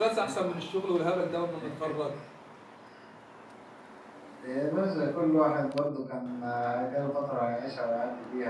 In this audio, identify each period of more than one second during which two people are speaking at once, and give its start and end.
none

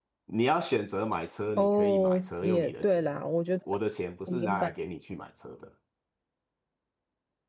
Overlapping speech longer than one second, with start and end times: 1.6-3.2

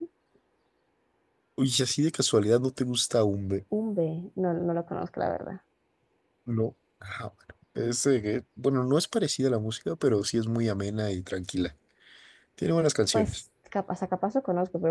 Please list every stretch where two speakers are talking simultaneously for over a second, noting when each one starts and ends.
none

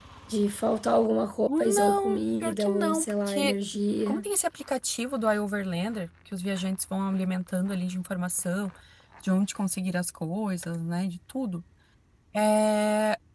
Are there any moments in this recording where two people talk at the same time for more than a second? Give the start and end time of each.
1.6-3.5

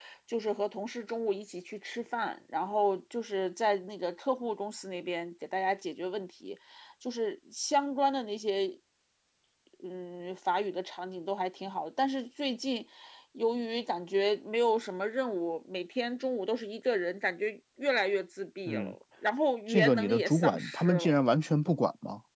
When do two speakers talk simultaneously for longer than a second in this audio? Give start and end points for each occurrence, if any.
19.7-21.2

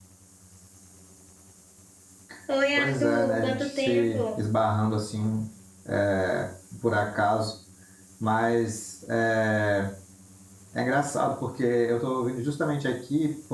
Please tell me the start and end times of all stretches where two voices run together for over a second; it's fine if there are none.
2.8-4.2

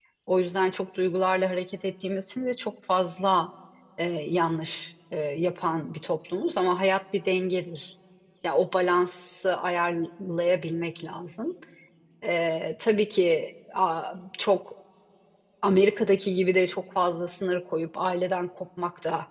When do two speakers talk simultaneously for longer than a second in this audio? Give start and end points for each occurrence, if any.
none

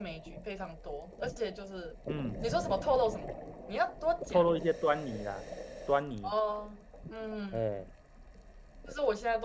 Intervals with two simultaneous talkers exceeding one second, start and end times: none

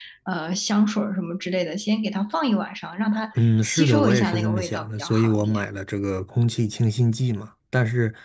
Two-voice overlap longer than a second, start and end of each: 3.4-5.6

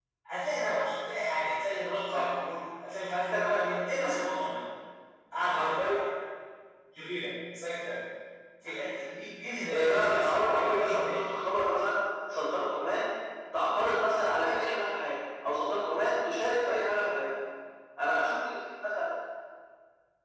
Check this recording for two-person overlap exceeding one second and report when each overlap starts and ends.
9.7-11.2

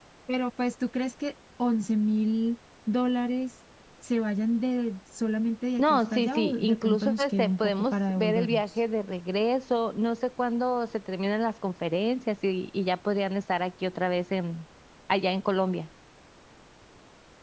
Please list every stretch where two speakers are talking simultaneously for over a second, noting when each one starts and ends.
5.8-8.6

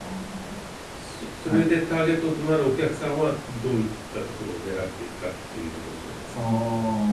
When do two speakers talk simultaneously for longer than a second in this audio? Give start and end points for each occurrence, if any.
none

